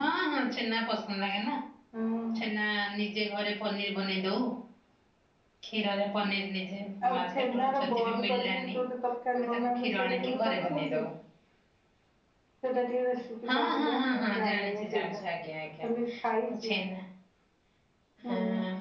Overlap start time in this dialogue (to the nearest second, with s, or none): 7 s